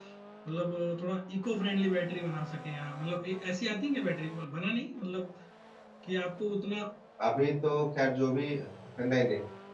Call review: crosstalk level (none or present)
none